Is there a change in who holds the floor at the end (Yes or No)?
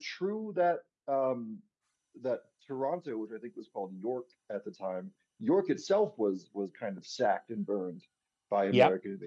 Yes